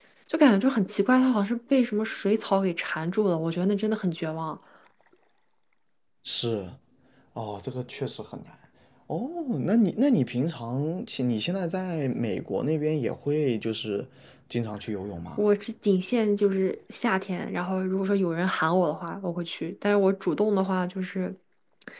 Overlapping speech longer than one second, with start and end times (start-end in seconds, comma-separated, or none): none